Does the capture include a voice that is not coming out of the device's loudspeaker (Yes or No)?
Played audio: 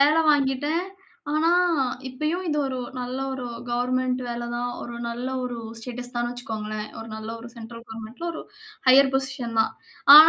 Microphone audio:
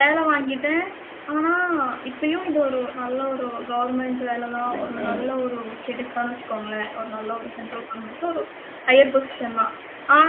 Yes